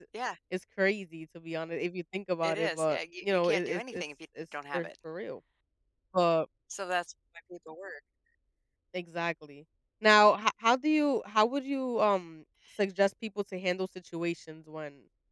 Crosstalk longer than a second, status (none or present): present